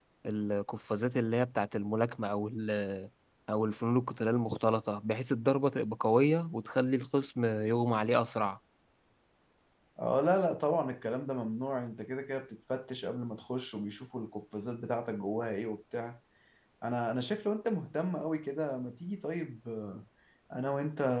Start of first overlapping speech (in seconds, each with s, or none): none